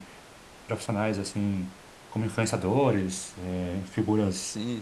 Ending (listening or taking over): taking over